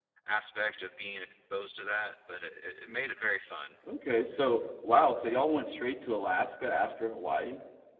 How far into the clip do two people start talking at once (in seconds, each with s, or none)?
none